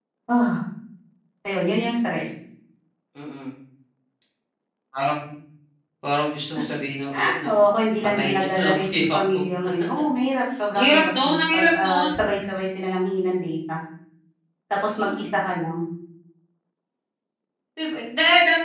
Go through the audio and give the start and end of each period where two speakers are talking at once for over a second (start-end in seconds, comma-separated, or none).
8.0-9.4, 10.7-12.2